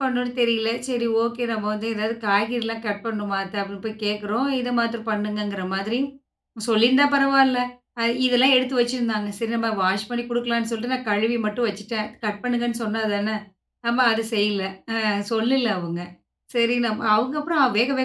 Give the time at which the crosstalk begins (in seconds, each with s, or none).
none